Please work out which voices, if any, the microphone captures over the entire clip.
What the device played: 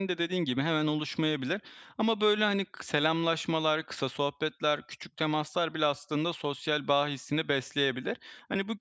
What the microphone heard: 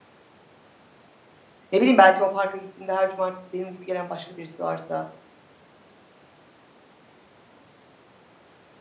user only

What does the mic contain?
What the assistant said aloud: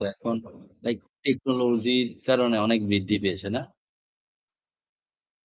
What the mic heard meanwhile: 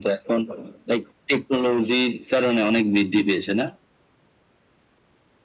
echo only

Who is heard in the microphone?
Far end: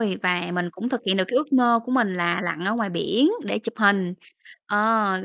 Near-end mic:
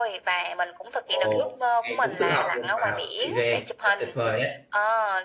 both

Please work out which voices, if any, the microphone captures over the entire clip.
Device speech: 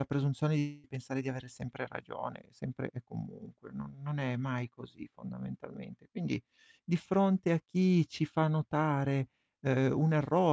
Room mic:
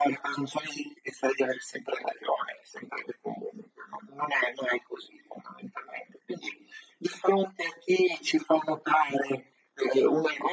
echo only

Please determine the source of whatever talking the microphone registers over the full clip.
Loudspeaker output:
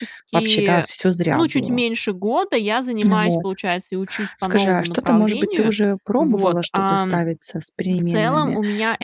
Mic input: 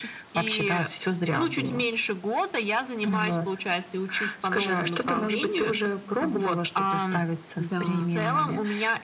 both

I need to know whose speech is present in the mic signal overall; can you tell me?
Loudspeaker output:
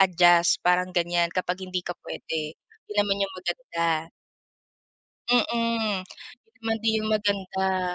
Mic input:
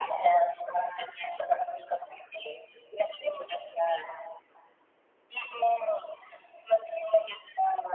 echo only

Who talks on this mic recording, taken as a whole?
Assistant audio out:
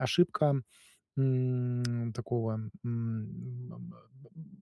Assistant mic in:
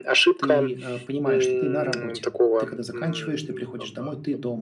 both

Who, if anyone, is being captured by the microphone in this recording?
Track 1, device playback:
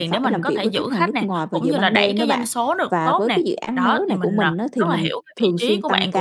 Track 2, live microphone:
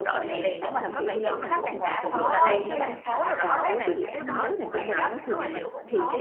both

